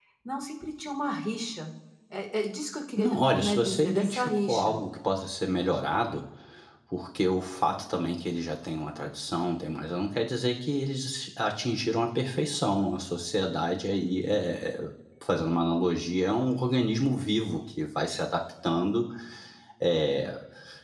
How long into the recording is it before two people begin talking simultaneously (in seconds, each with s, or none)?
3.0 s